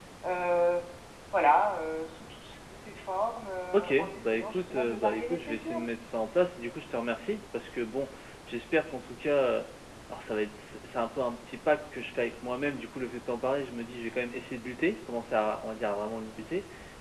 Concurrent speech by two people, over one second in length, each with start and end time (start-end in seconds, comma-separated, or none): 3.7-5.8